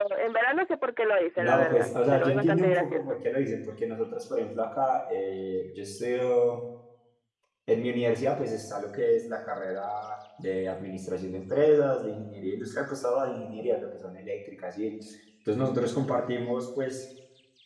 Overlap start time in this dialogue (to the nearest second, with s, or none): 1 s